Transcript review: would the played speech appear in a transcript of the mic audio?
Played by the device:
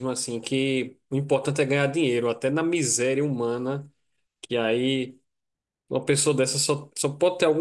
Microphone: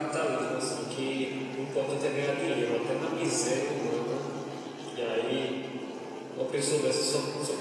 Yes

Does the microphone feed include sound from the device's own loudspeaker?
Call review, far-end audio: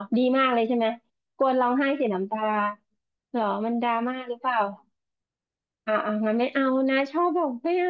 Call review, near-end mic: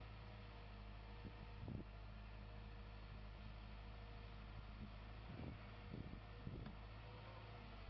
No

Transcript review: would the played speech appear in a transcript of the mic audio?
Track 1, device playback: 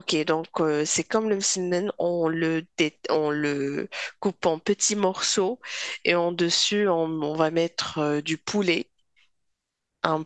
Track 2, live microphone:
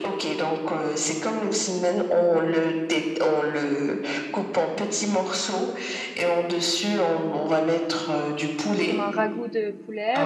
Yes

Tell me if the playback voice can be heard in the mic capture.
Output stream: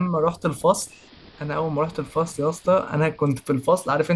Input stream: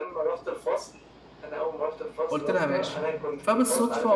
Yes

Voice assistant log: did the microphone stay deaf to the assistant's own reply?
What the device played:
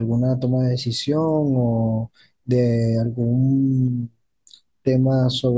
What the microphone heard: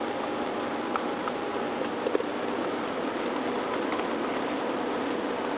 Yes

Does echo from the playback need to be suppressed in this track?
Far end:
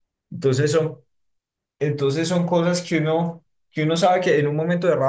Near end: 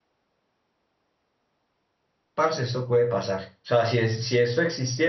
No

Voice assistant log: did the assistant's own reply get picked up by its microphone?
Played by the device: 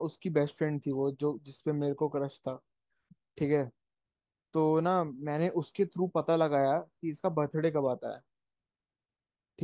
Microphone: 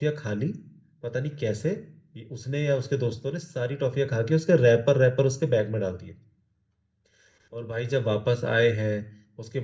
No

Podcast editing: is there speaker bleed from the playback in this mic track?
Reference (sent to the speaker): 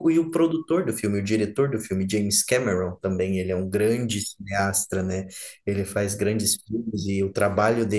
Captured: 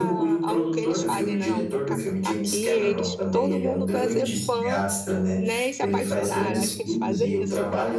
Yes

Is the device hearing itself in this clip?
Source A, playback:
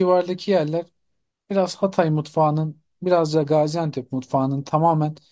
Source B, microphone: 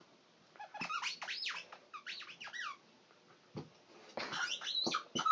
No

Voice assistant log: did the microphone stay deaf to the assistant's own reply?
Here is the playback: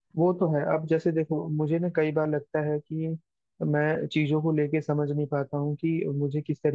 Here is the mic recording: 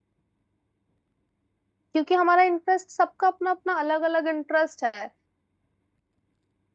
Yes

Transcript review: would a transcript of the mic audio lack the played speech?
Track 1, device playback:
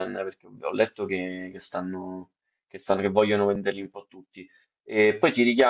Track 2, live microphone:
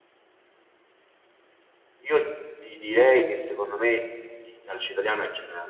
Yes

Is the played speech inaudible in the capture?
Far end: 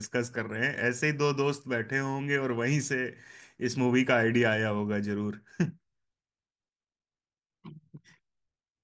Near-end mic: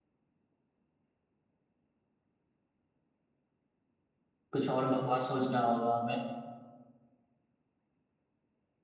Yes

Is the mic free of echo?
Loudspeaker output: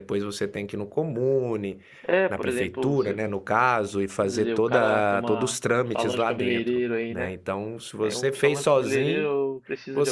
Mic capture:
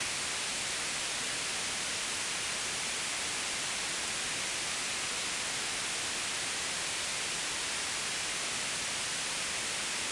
Yes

